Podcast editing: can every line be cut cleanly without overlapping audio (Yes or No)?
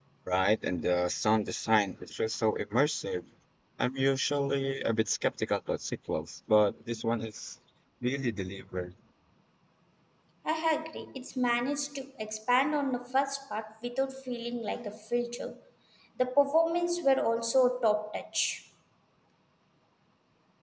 Yes